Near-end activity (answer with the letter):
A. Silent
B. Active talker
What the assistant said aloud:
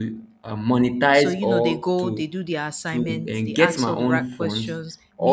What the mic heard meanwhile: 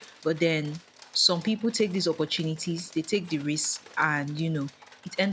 B